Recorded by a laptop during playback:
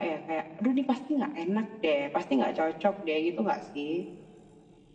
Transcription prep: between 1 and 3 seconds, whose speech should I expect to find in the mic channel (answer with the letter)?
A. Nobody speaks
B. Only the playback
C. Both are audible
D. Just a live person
B